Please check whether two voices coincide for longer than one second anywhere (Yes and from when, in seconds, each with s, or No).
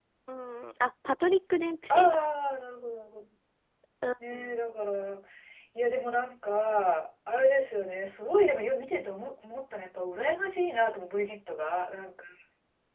No